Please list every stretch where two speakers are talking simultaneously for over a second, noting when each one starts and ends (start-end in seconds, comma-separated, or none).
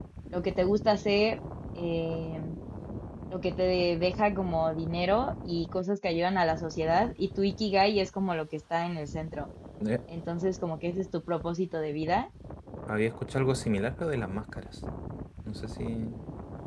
none